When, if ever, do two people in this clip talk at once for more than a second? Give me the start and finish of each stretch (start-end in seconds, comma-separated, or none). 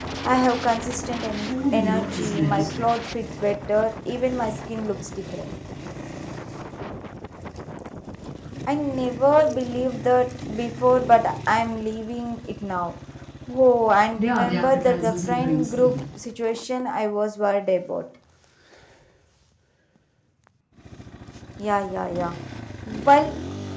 1.4-2.9, 14.2-16.0